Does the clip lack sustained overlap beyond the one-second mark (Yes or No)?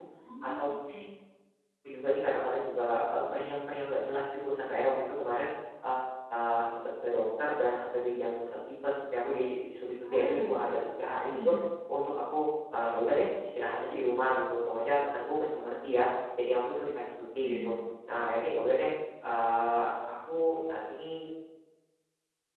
Yes